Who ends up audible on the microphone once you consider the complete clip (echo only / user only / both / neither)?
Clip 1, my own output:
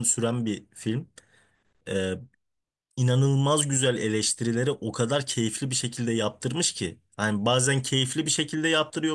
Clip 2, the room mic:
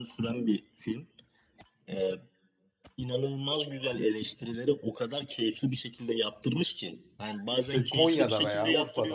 both